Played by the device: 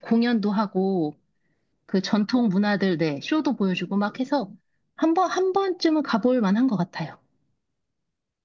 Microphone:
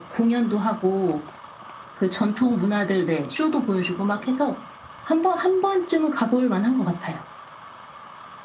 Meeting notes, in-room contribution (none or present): none